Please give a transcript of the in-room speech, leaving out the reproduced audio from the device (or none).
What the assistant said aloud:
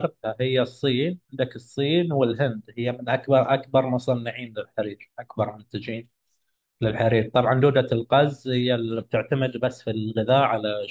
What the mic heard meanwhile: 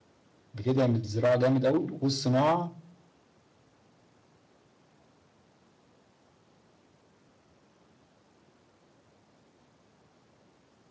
بتدعم الزراعة جامد أوي والصناعة